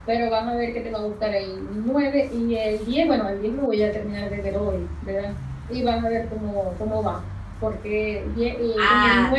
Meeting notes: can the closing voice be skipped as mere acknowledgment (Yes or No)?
Yes